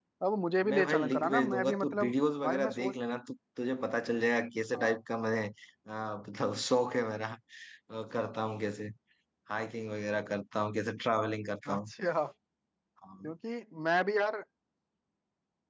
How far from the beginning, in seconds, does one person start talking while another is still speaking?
0.7 s

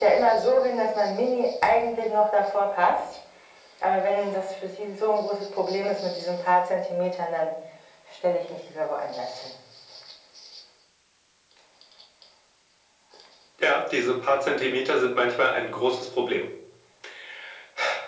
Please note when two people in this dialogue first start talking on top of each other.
none

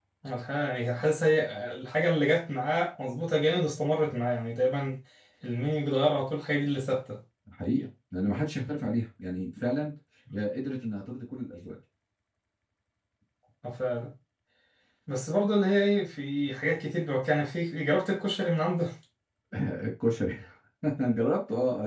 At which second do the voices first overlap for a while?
none

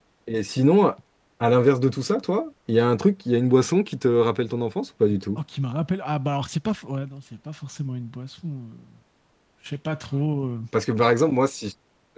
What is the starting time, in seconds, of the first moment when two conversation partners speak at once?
none

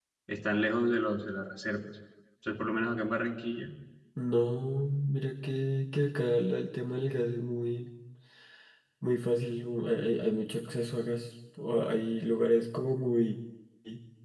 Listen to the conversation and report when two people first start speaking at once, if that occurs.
none

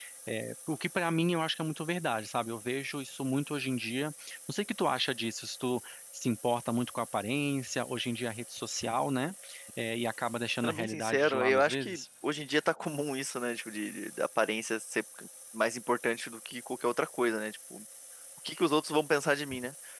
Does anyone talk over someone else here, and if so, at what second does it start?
10.6 s

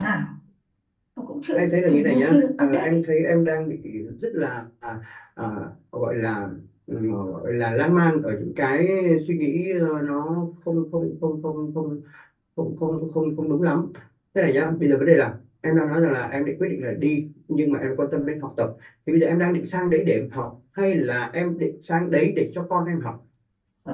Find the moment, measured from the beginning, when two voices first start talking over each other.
1.6 s

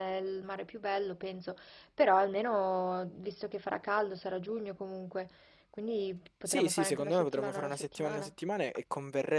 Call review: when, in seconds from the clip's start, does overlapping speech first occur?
6.5 s

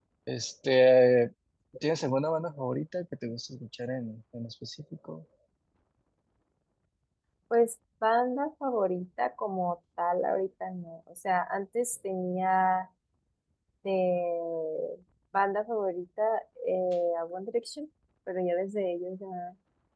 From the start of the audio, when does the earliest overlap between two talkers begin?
none

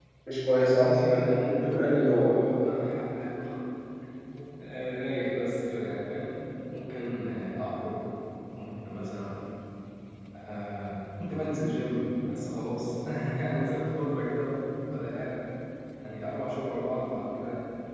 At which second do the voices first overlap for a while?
0.6 s

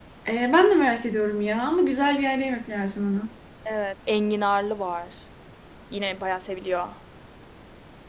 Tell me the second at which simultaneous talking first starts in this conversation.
none

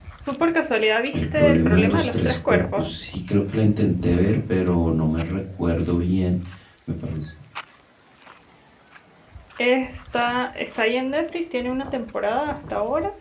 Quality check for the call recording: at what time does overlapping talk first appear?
1.1 s

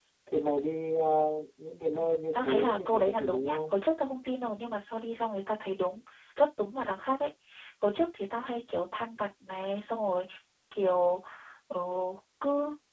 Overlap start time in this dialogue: 1.9 s

